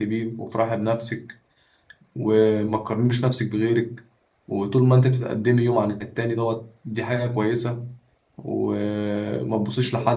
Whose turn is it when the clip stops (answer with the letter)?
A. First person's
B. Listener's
A